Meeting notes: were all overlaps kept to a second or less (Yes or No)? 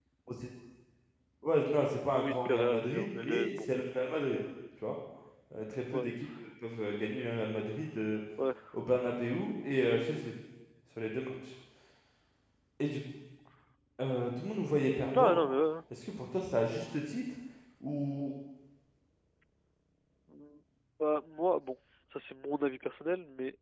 No